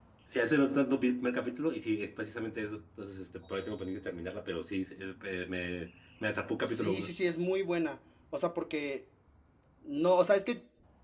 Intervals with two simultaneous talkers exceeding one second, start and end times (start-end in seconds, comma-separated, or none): none